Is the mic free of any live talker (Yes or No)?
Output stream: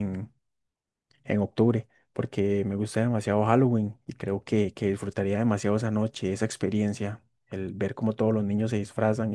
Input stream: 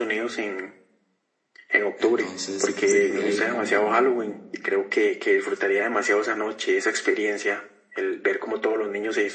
No